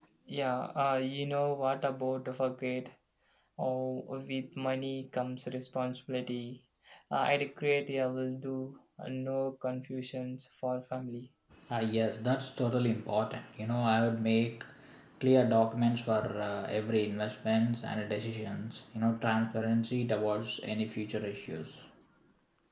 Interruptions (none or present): none